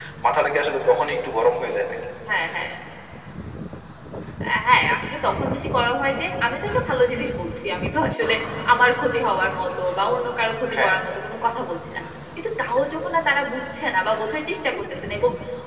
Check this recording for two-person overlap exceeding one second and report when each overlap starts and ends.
none

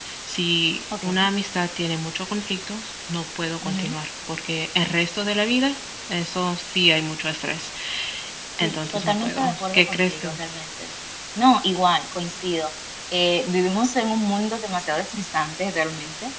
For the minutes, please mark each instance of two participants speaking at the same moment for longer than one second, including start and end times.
8.6-10.4

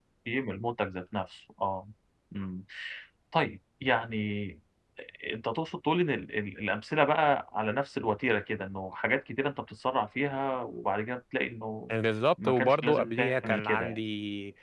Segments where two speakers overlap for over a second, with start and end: 12.4-14.0

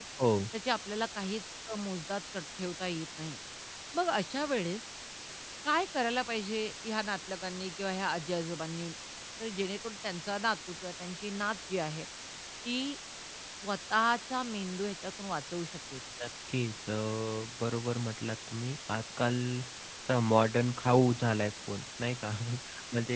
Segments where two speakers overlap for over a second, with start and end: none

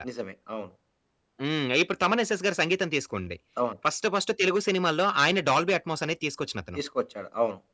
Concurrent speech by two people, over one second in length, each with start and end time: none

